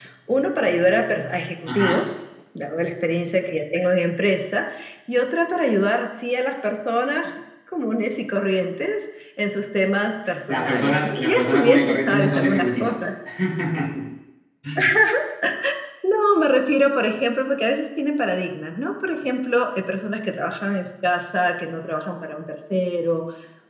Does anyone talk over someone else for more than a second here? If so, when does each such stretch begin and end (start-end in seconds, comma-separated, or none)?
10.5-13.1